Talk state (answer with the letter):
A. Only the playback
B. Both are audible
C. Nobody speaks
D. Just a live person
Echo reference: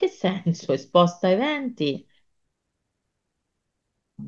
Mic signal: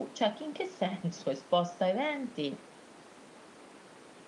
A